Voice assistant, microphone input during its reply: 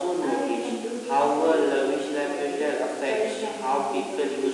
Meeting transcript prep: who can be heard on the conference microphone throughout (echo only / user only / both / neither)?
echo only